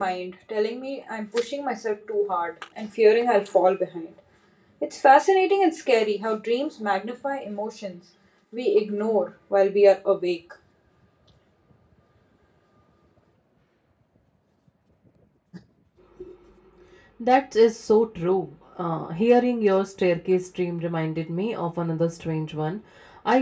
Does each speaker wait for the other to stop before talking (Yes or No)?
Yes